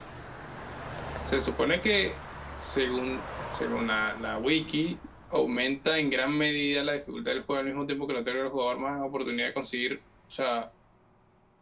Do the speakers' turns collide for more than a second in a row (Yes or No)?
No